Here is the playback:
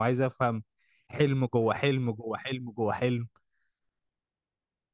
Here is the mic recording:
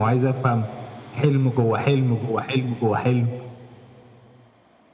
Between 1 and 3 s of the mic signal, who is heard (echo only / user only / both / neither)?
echo only